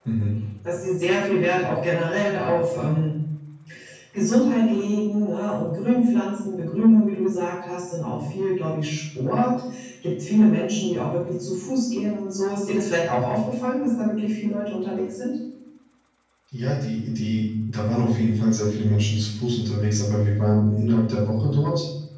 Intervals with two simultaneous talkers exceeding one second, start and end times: none

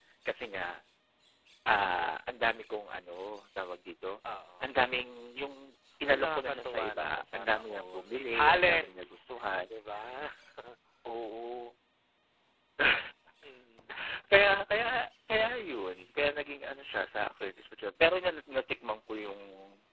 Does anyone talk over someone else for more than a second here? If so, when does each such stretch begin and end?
6.0-9.0

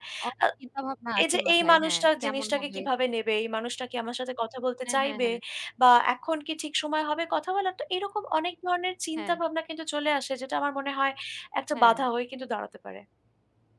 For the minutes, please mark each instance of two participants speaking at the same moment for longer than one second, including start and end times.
1.2-2.8

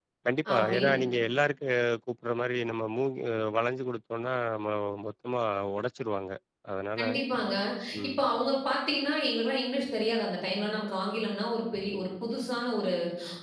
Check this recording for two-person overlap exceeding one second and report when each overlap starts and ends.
none

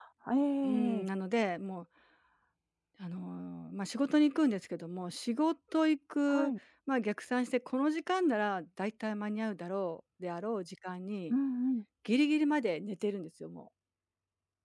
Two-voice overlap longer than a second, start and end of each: none

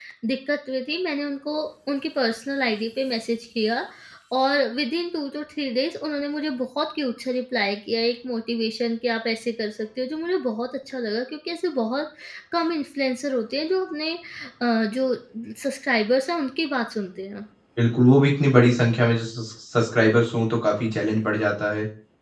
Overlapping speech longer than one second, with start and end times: none

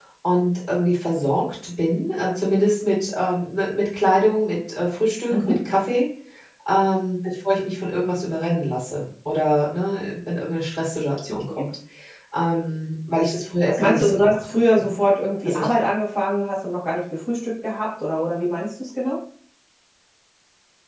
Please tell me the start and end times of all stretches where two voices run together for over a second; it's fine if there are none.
13.7-15.0

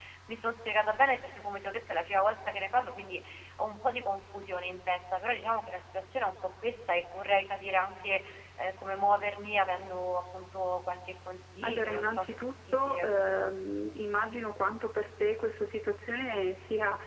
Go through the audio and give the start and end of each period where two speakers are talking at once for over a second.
11.7-13.1

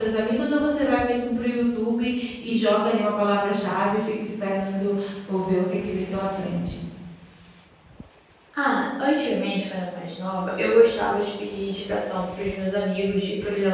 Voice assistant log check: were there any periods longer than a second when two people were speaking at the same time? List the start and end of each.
none

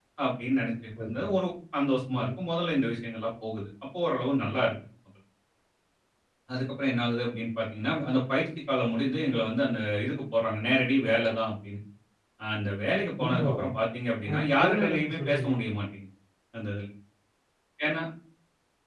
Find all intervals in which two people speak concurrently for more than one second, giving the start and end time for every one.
14.3-15.5

